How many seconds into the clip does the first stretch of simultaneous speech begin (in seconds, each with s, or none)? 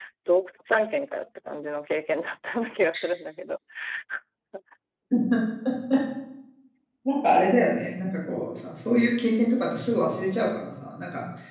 none